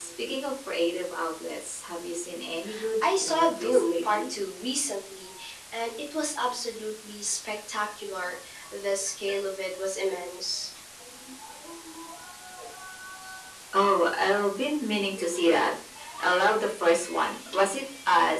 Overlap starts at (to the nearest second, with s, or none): 3 s